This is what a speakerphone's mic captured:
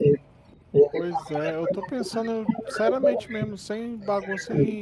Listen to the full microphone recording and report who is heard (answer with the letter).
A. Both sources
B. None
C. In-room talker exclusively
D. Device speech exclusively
A